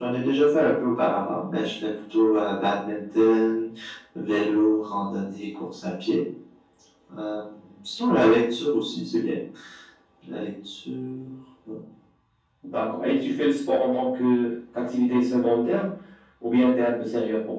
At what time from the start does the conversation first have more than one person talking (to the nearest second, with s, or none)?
none